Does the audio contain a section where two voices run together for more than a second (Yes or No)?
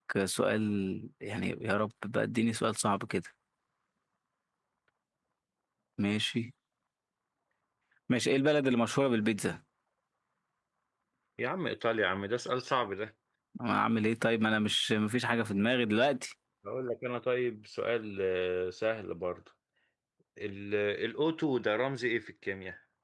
No